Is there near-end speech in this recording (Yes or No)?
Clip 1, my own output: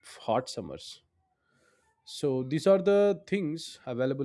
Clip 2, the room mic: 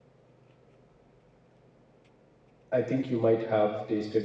Yes